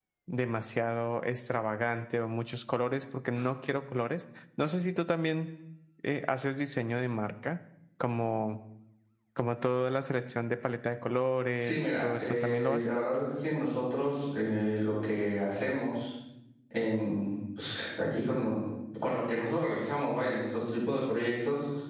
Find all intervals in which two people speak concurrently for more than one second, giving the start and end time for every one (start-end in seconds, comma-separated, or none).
11.6-13.0